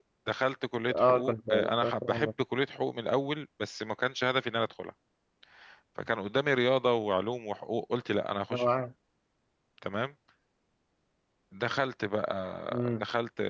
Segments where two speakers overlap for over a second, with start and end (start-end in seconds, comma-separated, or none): 0.9-2.3